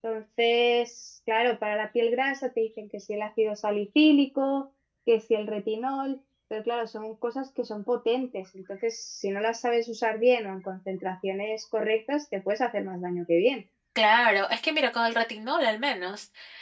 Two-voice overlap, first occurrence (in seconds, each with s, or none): none